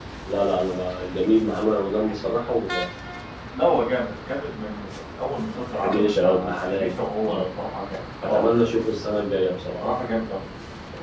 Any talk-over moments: Yes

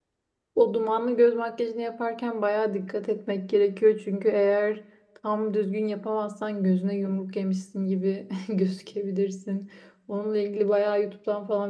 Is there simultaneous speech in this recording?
No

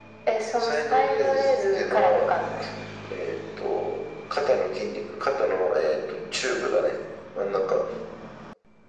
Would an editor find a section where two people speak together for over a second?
Yes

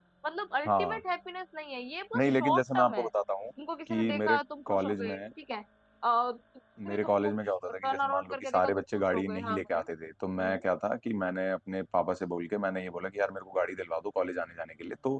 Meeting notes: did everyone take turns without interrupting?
No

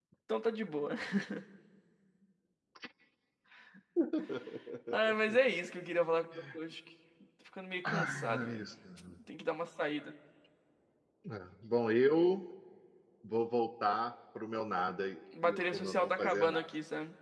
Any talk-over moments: Yes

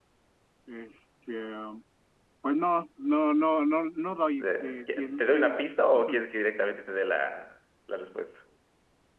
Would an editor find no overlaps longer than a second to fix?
No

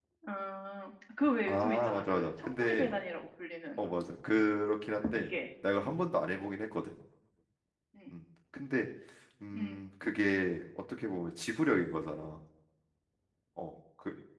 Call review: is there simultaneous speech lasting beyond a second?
Yes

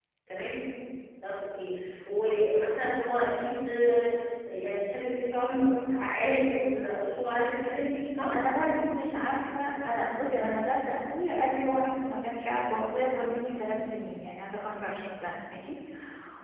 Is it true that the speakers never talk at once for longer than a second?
Yes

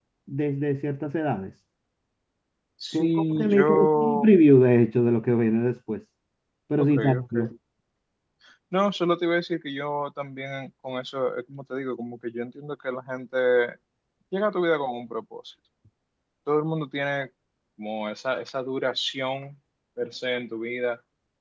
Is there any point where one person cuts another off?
Yes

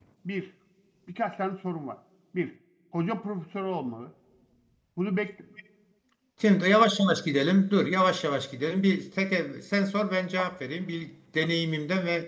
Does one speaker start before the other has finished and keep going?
No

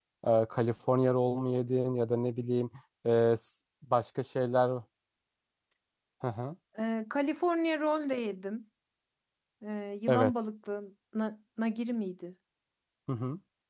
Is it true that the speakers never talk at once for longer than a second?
Yes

